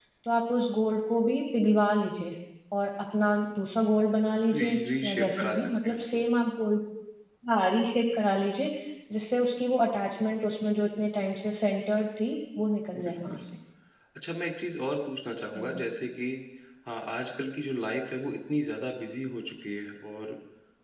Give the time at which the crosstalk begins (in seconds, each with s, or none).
4.5 s